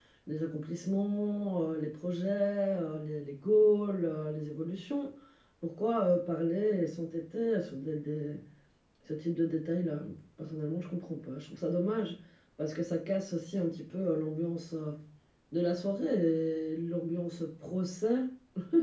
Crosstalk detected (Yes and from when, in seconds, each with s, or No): No